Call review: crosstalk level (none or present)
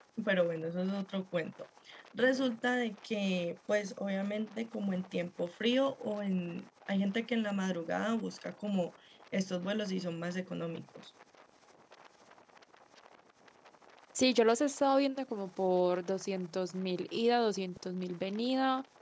none